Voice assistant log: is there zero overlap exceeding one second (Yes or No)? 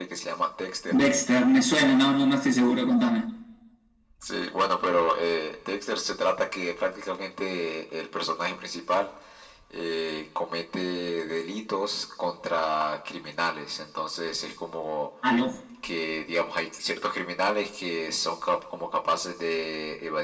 Yes